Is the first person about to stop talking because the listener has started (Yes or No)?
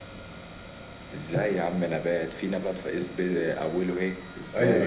Yes